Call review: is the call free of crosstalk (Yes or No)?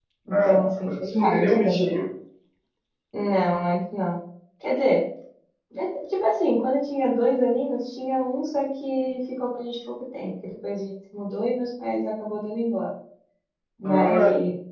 No